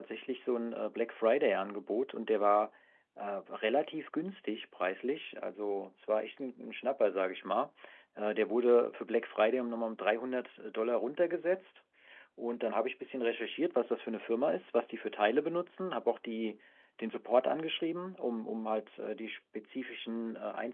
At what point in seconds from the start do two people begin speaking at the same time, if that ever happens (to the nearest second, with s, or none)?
none